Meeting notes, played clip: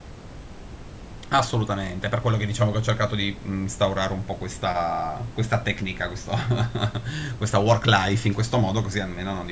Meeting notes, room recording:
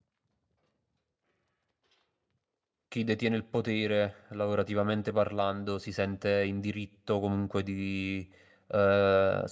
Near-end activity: present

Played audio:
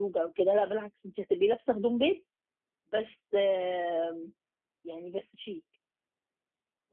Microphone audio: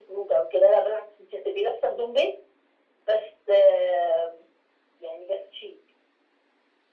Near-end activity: none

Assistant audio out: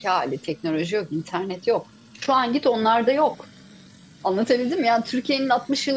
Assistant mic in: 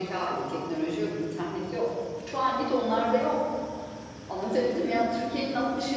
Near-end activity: none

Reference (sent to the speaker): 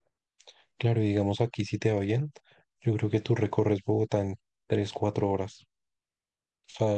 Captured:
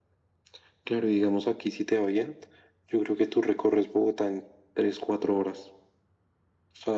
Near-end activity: none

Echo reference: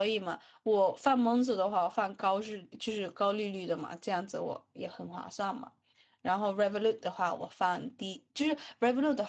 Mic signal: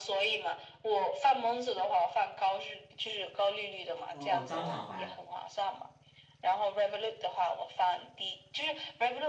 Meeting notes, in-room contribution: present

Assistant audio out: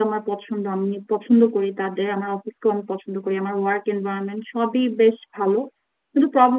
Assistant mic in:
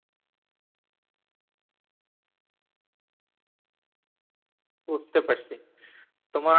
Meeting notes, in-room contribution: present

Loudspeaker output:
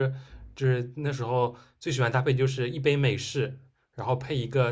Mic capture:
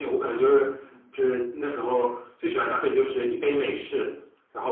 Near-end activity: none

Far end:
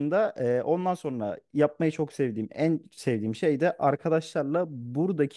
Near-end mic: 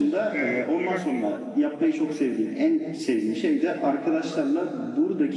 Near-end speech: present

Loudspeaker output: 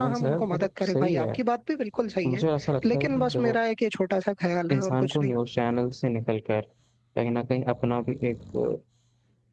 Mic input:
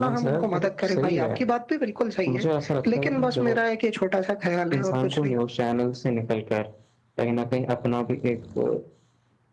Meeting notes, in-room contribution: none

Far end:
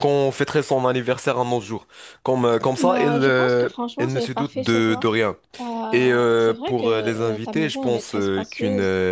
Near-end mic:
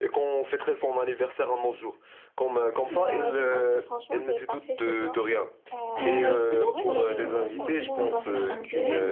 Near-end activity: present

